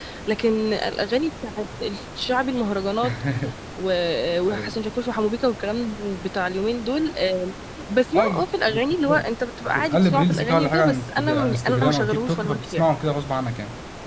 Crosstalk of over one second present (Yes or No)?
Yes